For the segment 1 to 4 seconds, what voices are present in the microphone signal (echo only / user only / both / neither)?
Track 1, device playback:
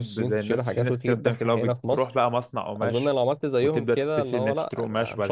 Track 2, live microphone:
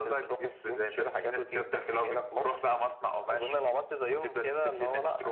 echo only